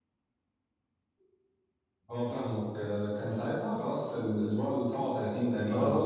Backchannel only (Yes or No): No